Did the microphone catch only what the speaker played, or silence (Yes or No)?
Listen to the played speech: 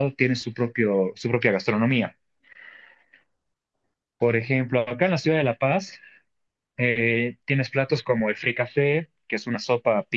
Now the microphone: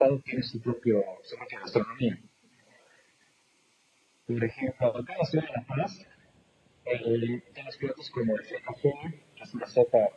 Yes